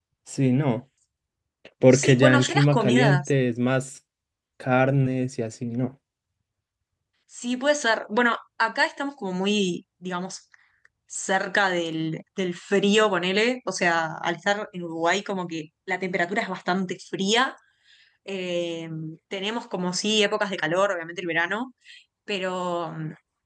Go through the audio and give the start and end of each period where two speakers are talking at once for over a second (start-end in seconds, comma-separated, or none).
1.9-3.3